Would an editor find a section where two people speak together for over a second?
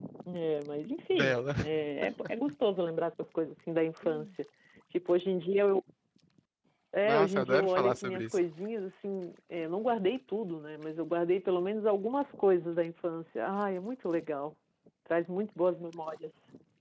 Yes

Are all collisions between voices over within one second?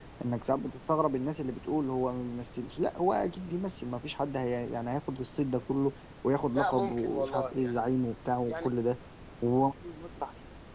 No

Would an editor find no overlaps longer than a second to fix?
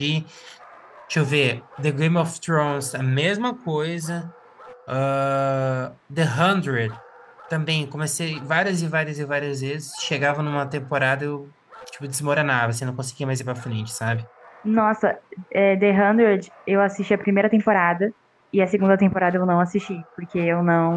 Yes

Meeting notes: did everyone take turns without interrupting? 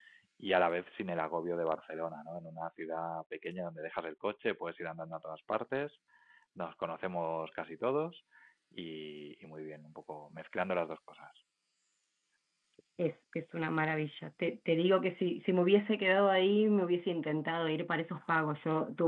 Yes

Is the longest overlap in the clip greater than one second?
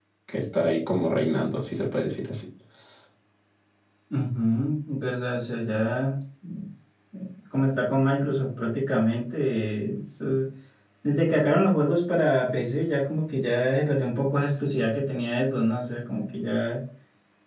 No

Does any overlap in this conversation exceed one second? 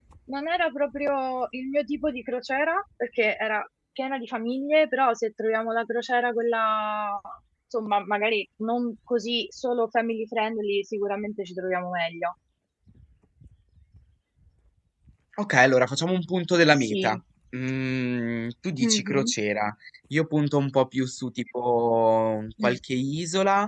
No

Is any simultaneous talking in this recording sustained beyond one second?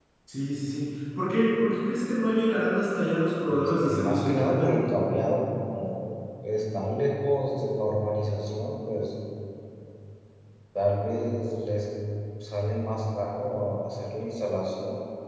Yes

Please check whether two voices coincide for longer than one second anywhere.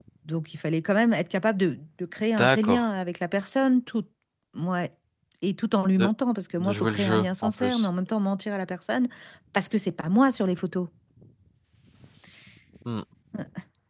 Yes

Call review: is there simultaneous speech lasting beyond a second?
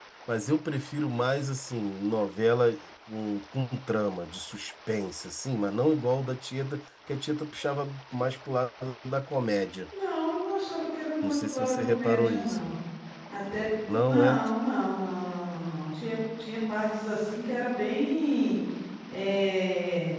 Yes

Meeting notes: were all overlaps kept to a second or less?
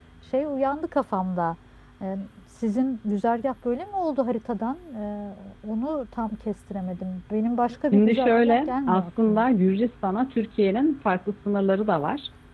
No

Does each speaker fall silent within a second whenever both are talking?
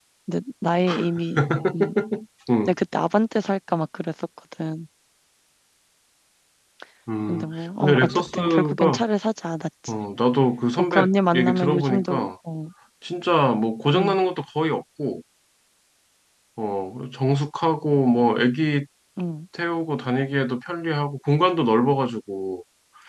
No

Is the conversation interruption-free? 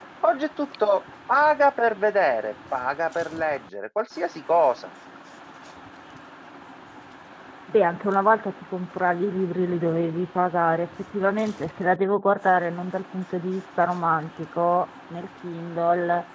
Yes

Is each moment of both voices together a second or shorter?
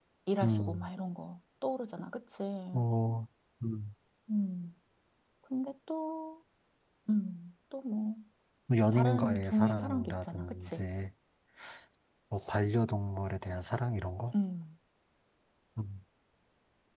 No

